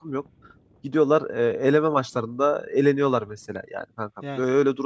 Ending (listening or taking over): listening